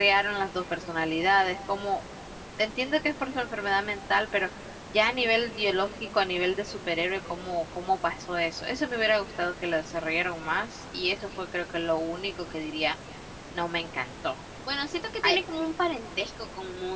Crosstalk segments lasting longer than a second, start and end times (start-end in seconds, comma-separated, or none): none